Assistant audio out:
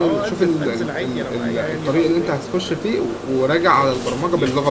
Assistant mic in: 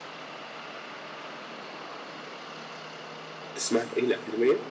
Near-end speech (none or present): present